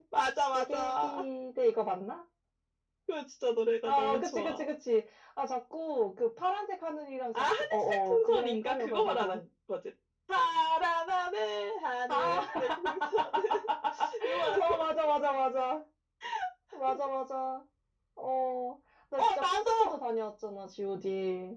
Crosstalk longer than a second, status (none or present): present